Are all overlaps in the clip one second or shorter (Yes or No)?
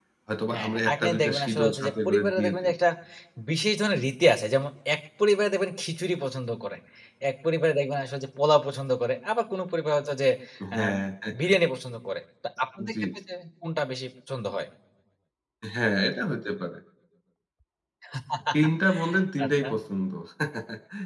No